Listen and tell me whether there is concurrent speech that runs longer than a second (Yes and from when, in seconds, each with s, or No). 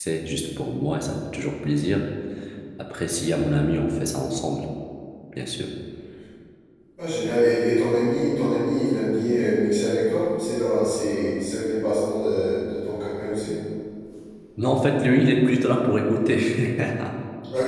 No